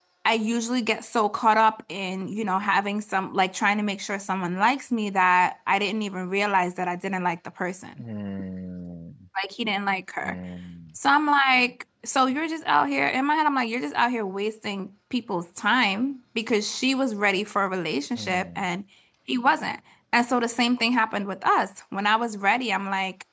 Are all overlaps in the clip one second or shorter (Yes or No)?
Yes